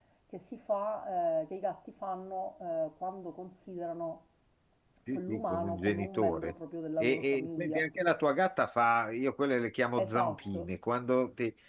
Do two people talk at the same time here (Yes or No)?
Yes